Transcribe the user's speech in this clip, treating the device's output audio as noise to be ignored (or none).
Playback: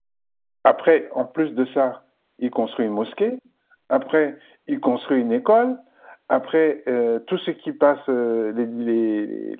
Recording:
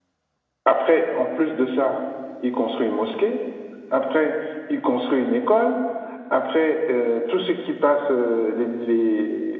none